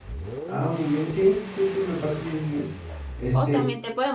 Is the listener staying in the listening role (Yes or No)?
No